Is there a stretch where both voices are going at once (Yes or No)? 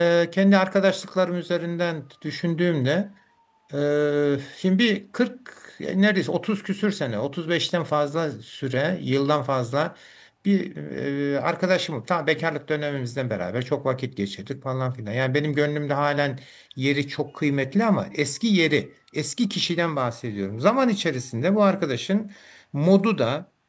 No